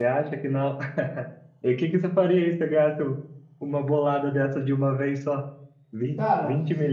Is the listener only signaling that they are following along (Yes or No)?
Yes